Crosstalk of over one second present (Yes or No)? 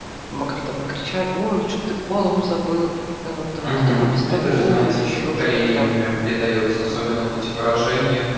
Yes